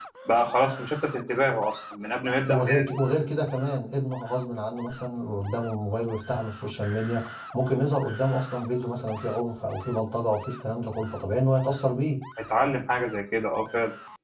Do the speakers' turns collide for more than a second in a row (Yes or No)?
No